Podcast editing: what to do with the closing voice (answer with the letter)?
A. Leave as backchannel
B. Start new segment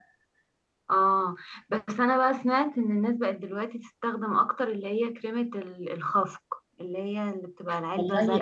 B